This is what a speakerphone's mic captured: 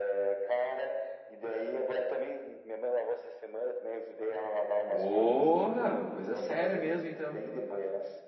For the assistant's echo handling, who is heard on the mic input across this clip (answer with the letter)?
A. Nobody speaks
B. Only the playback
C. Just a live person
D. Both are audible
D